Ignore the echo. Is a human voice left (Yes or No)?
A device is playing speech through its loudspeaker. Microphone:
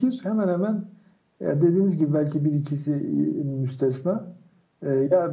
No